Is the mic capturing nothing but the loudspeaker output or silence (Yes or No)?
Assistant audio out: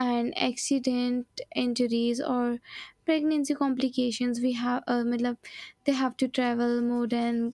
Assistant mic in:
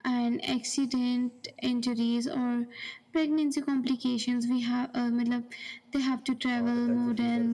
No